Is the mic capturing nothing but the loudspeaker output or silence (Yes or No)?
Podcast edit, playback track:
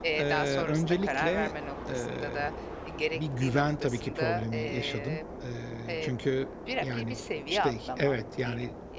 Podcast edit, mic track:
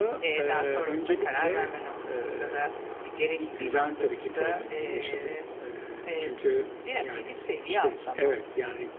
Yes